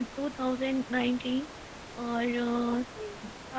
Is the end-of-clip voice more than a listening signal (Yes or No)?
No